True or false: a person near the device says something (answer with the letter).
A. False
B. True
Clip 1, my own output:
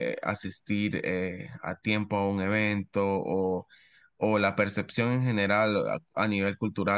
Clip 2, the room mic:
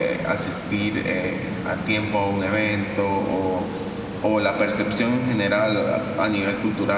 A